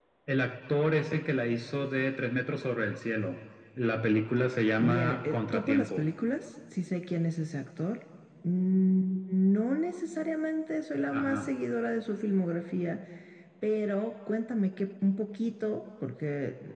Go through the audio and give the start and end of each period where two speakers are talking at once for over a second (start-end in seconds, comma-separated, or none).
4.8-6.1